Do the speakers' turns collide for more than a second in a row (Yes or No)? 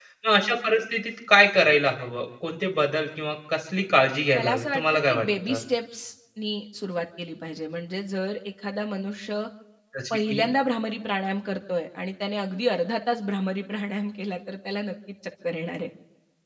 Yes